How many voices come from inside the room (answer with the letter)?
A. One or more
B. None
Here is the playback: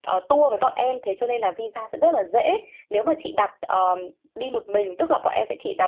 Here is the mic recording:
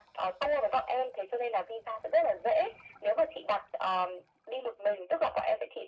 B